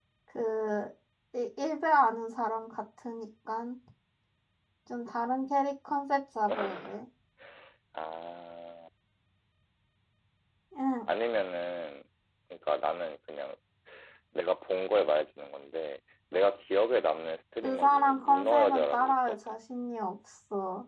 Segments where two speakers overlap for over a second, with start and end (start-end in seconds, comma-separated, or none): 17.6-19.6